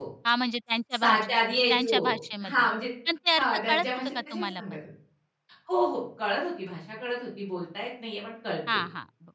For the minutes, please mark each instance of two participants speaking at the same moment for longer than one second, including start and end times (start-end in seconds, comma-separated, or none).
3.4-4.8